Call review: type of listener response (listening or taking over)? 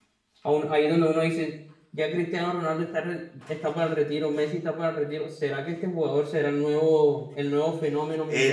taking over